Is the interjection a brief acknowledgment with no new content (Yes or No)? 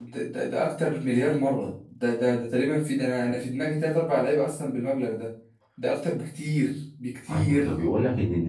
No